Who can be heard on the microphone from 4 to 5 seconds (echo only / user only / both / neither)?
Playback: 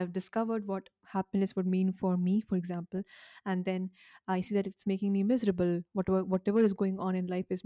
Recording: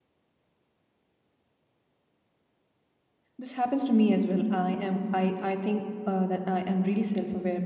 user only